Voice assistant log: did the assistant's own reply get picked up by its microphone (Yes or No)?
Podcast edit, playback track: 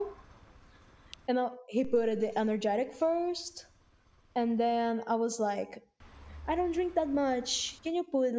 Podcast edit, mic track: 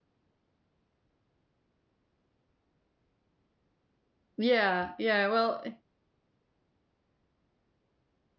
No